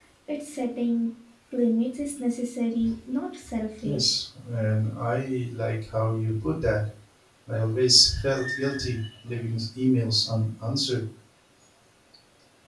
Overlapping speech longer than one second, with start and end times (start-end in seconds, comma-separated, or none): none